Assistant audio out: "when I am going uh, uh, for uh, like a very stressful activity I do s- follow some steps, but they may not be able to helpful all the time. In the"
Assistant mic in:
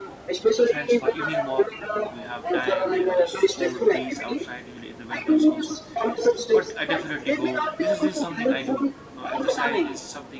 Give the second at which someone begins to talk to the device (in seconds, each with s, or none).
0.6 s